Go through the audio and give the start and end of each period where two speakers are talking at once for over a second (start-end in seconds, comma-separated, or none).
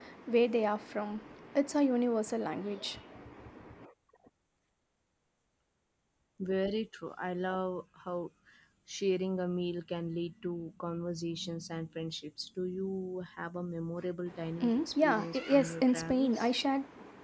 14.6-16.4